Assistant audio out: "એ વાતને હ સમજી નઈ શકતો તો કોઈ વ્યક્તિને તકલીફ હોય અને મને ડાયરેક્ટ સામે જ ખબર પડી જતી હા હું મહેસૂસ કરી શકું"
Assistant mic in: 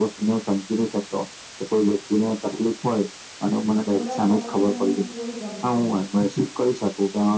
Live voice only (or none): મોટા થયા, પછી તો મને કોઈ ગમતું નહી.